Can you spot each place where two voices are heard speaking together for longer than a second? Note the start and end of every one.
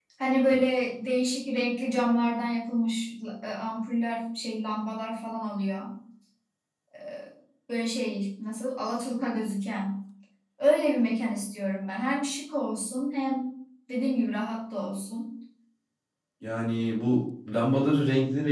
none

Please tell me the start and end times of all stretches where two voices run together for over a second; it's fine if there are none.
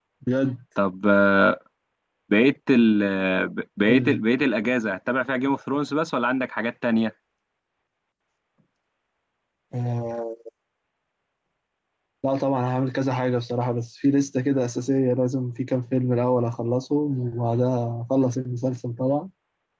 none

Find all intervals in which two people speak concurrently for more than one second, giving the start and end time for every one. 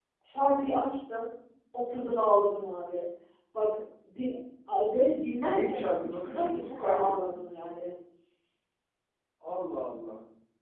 5.4-7.6

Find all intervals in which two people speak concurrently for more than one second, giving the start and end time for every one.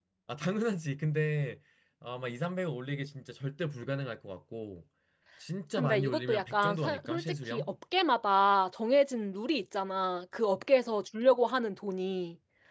5.8-7.7

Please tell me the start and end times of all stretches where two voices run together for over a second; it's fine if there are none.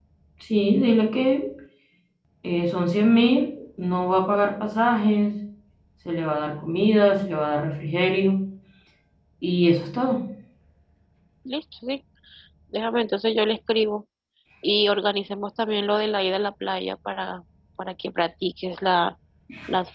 none

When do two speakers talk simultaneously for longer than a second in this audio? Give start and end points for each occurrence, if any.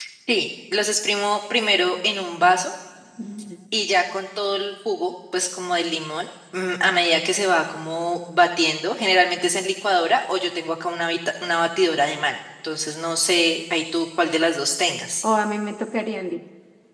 none

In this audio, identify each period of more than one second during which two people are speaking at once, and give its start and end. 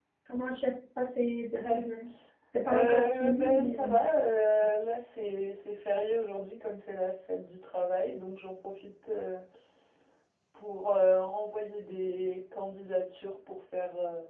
2.6-4.0

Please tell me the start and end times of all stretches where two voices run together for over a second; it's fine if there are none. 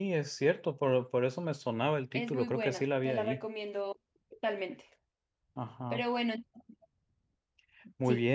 2.1-3.4

